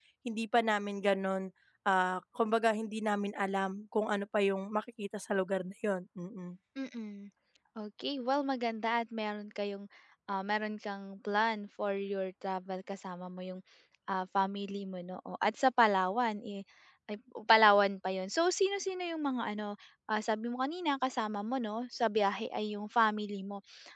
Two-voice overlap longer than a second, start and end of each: none

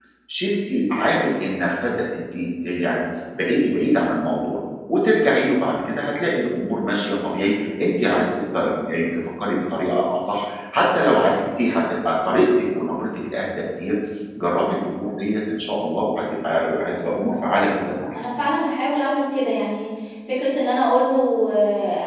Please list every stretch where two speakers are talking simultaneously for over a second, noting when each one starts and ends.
none

